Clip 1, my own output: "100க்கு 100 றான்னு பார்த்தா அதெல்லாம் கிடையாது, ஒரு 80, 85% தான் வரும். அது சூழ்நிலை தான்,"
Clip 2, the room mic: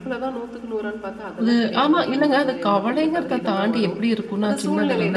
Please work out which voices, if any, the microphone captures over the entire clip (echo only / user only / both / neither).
both